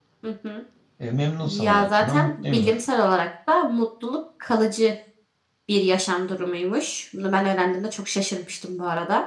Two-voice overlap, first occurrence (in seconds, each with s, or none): 1.4 s